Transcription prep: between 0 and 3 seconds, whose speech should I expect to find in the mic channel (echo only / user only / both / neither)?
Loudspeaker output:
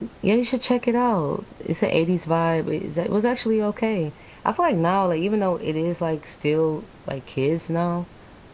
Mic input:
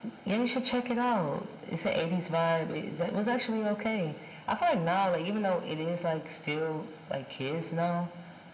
echo only